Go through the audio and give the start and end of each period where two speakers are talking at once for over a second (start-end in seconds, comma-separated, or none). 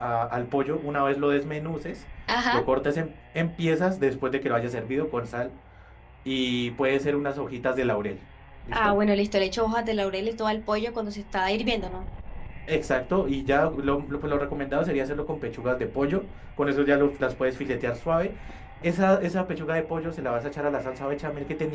none